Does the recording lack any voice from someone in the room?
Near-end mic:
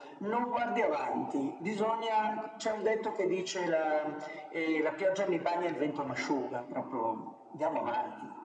Yes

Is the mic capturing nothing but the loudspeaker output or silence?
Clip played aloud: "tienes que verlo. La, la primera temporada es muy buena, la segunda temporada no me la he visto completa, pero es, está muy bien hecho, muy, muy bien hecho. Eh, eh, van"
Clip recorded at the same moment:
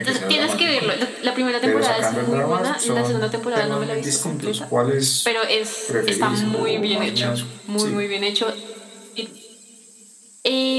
No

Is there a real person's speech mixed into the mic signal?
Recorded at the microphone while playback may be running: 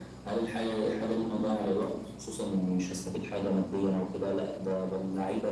No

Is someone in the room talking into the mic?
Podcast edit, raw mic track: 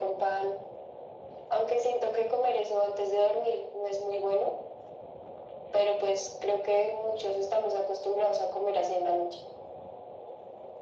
No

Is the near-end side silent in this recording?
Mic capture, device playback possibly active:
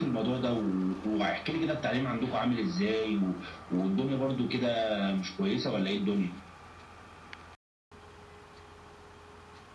Yes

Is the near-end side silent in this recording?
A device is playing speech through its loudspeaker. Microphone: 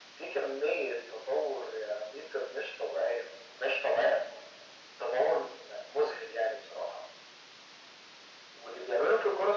Yes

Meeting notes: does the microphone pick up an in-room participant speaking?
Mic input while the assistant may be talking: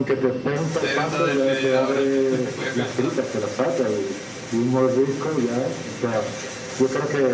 Yes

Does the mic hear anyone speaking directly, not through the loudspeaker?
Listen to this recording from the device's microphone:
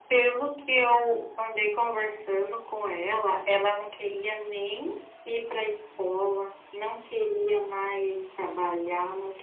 No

